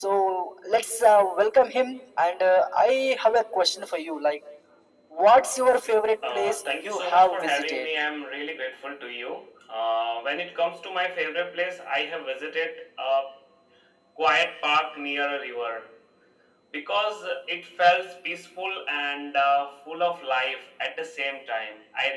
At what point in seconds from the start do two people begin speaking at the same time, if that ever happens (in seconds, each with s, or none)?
6.2 s